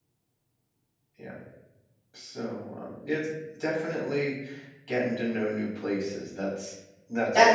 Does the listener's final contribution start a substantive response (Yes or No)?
Yes